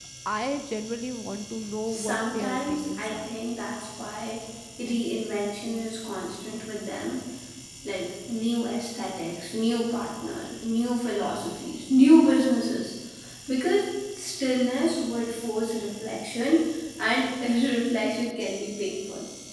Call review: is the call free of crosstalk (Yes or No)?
No